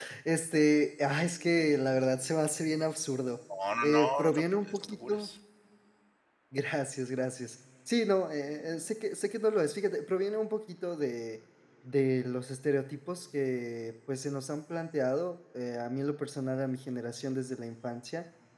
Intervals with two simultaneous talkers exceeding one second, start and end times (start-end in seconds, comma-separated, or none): 3.8-5.3